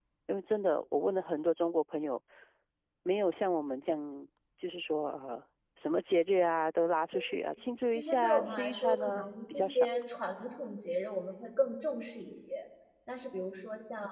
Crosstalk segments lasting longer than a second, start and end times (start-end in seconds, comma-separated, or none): 7.9-9.9